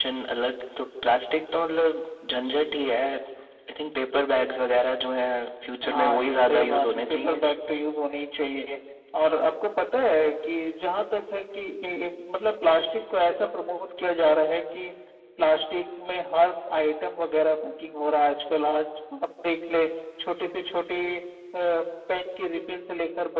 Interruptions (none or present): present